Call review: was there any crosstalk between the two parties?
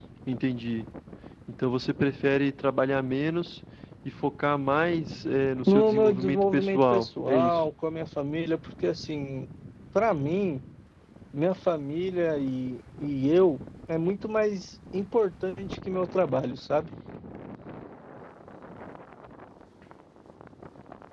Yes, from 5.7 s

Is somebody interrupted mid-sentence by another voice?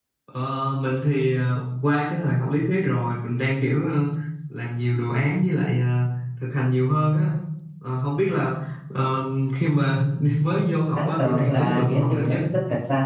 Yes, from 10.9 s

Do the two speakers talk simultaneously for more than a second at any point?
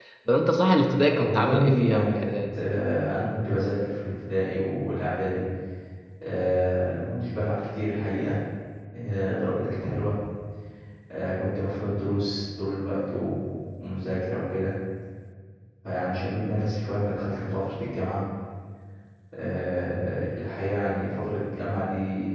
Yes, from 1.1 s

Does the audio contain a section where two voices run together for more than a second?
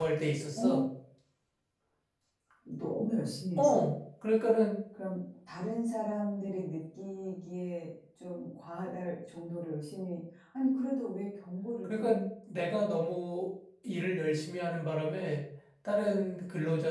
No

